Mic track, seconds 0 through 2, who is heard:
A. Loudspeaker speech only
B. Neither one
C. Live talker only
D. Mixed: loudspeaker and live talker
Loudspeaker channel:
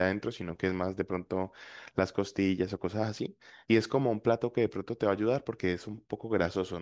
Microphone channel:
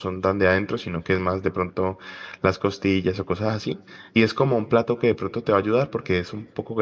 A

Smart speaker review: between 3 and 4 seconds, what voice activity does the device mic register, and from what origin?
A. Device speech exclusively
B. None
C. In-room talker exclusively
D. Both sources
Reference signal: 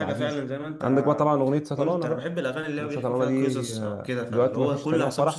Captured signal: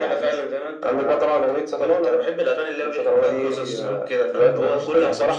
D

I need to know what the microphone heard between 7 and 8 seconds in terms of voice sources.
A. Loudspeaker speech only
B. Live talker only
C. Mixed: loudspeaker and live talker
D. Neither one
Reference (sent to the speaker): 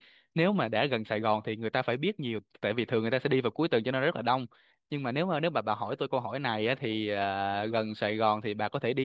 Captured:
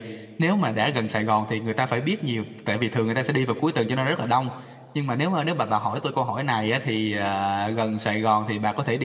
A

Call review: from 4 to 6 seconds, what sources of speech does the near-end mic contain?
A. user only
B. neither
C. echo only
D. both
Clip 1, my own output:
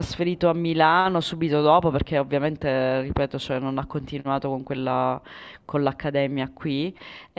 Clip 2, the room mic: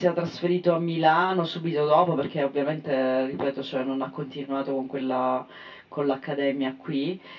C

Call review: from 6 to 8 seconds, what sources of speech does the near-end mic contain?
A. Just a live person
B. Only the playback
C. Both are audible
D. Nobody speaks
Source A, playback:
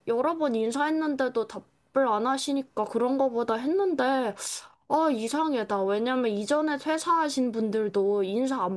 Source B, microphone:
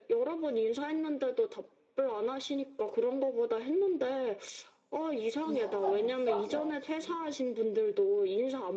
C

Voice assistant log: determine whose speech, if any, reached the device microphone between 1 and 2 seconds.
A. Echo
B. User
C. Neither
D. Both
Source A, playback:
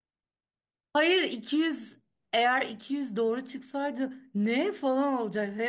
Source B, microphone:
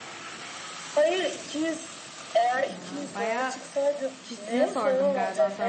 A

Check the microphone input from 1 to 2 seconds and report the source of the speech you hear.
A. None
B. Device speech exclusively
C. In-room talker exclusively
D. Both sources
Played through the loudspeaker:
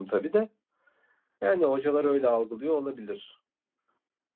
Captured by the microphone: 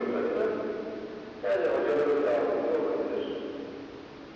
B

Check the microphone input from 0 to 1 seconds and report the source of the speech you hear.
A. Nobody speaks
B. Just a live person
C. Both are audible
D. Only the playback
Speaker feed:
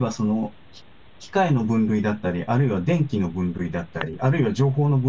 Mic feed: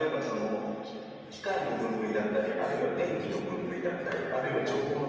D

